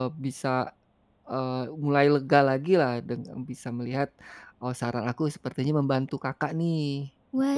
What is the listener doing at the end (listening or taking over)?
taking over